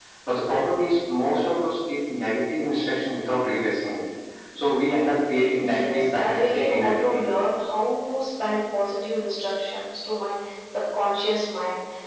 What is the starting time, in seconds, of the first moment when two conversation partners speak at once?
5.6 s

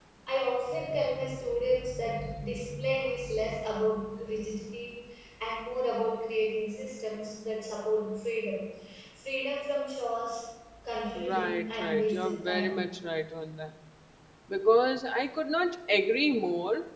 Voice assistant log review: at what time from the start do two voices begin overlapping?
11.2 s

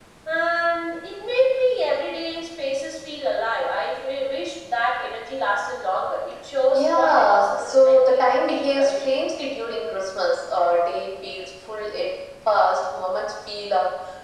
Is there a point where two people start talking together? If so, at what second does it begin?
6.7 s

